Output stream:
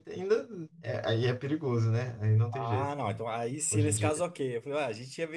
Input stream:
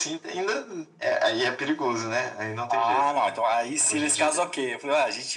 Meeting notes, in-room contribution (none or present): none